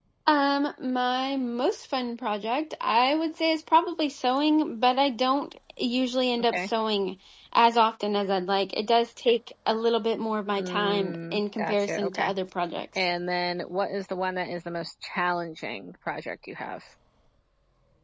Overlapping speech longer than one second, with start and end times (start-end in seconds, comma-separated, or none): 10.6-12.3